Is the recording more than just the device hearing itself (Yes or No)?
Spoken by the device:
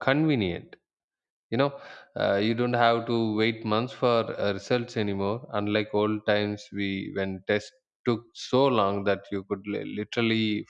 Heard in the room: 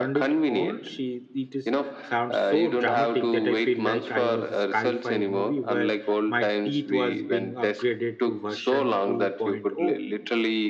Yes